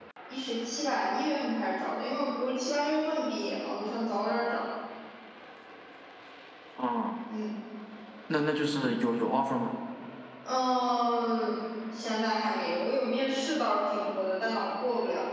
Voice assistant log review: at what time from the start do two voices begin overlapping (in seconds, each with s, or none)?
none